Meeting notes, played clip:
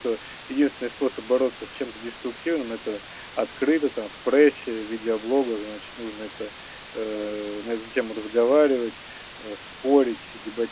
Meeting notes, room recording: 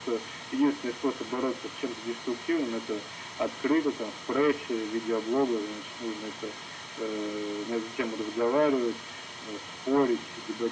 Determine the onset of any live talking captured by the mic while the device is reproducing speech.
none

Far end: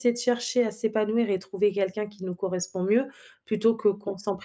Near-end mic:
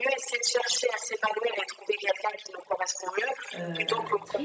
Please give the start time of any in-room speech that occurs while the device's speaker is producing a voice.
3.5 s

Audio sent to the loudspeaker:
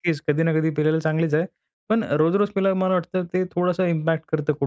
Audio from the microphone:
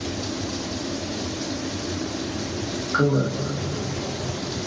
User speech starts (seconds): 3.0 s

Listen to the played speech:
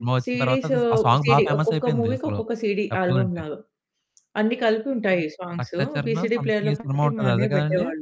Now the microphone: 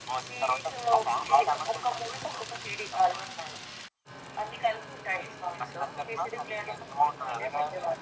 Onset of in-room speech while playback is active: none

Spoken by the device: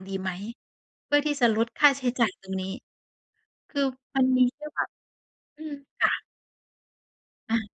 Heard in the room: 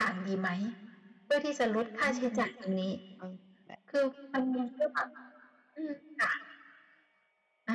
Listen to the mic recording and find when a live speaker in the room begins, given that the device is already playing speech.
2.0 s

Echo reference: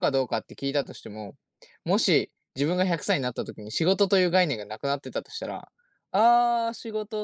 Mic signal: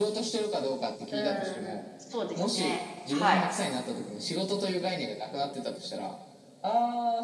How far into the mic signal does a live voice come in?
1.1 s

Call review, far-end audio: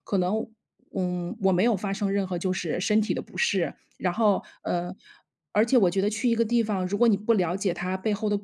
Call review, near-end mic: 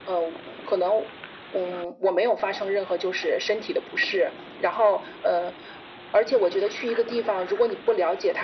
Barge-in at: none

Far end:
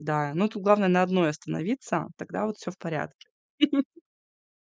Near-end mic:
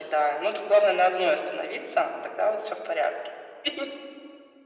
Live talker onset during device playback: none

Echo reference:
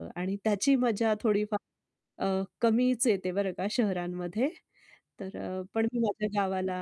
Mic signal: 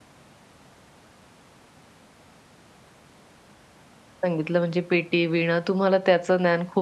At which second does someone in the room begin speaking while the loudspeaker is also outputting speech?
4.2 s

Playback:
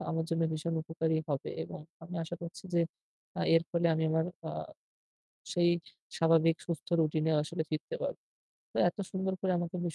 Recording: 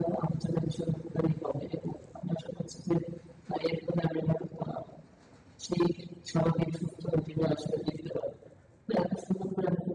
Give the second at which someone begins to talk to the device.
none

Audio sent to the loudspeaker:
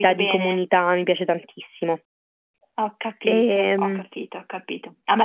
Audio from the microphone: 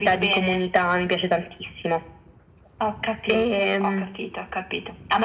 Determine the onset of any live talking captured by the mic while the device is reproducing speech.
none

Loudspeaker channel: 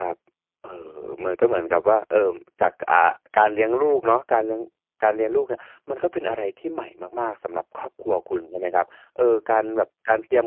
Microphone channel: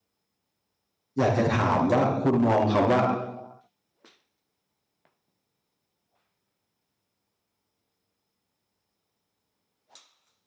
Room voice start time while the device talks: 1.2 s

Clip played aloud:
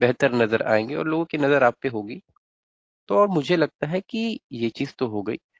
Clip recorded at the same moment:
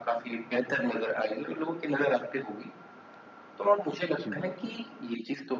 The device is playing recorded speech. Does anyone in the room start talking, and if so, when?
4.2 s

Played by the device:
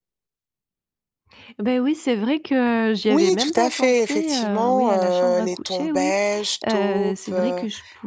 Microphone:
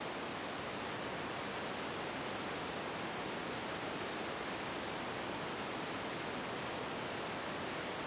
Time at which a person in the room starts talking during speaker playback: none

